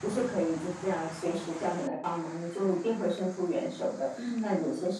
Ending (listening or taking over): listening